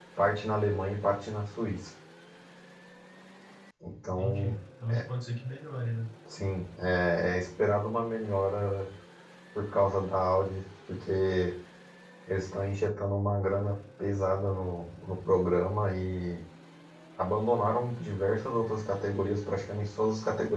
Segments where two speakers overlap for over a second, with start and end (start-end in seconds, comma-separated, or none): none